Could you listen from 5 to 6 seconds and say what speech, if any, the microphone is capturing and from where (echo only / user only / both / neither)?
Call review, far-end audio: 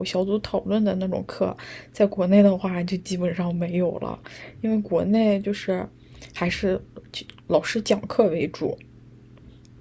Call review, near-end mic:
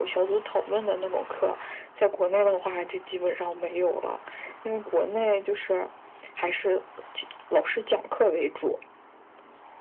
echo only